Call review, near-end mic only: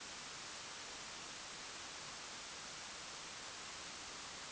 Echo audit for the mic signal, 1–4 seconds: neither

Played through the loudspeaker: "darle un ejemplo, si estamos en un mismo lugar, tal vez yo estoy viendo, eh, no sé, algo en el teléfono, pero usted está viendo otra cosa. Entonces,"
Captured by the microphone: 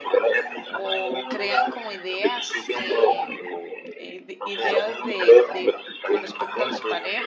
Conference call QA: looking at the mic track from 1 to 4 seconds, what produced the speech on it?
both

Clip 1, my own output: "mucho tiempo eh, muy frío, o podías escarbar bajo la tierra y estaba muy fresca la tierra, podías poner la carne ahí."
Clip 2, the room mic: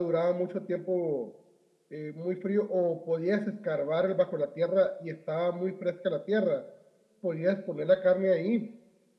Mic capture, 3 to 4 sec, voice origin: echo only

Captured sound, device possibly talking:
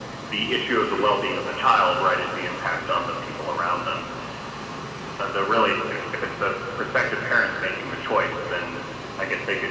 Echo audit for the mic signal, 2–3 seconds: echo only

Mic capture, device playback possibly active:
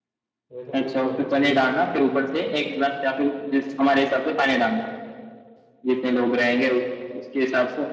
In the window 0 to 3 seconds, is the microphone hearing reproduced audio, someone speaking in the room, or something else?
both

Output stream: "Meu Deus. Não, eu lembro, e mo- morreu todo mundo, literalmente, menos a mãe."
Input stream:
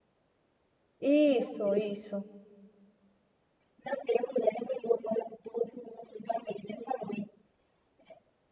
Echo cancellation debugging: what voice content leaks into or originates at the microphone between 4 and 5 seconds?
echo only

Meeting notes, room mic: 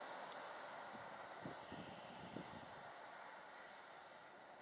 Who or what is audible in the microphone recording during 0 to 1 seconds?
neither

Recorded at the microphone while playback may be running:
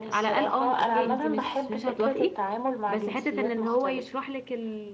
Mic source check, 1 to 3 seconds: both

